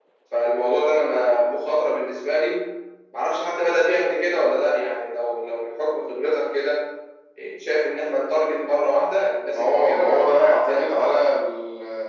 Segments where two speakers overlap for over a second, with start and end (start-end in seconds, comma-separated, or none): 9.5-11.2